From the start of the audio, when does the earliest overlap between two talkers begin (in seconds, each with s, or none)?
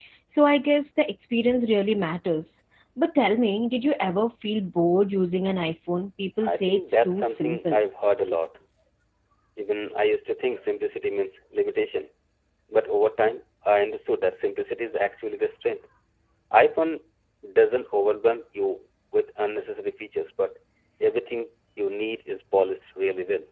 6.4 s